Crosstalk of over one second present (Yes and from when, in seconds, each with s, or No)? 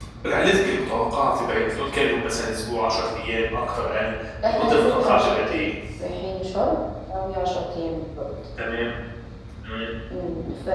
Yes, from 4.4 s